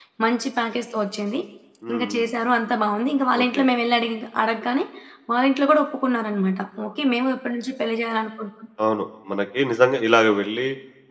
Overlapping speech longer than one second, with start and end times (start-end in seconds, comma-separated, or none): none